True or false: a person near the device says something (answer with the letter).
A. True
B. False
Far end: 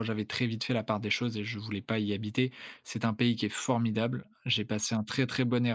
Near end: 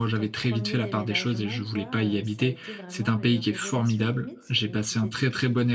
A